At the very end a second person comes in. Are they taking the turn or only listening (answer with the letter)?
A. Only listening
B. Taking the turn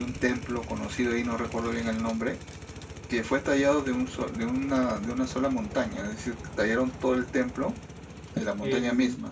B